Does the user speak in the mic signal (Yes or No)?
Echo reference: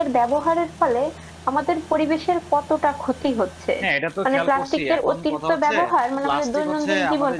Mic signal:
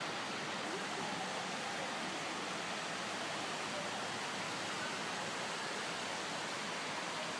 No